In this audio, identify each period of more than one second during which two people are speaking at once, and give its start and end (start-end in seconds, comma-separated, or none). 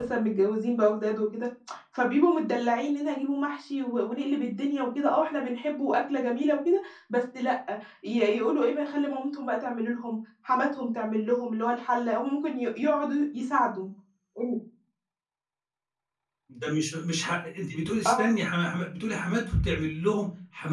none